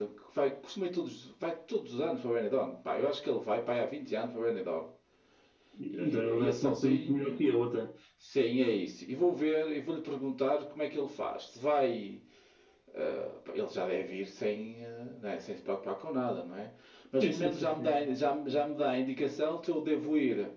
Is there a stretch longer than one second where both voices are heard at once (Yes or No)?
Yes